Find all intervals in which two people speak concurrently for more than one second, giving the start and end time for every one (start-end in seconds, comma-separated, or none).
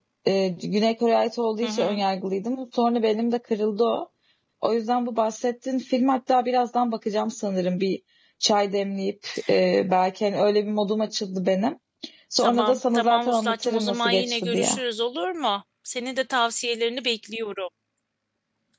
12.4-14.8